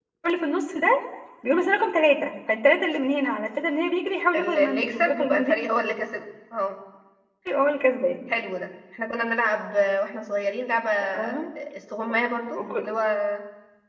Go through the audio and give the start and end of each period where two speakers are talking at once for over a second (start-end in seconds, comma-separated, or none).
4.3-5.6